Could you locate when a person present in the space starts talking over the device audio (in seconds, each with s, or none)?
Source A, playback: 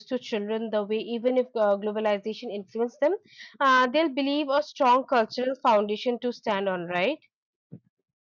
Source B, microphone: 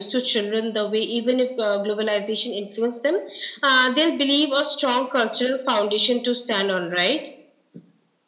none